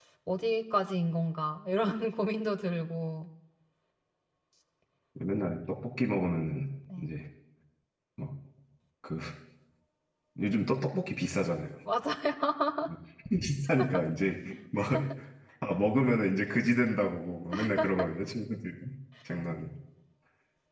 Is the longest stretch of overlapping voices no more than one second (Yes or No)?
Yes